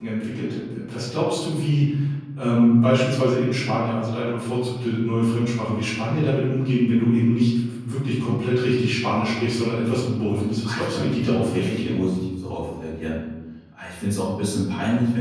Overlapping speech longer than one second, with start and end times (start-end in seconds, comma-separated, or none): 10.6-12.0